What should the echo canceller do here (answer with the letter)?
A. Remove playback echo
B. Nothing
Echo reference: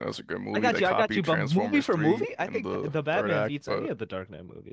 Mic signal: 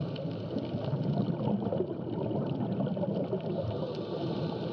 B